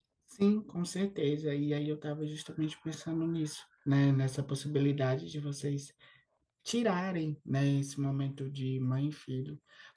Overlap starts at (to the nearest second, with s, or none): none